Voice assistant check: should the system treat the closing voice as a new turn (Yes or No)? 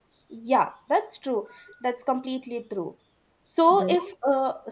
No